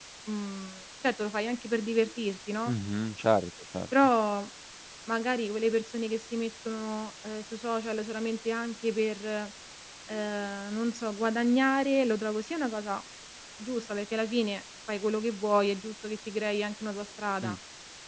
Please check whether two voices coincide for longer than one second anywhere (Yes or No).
No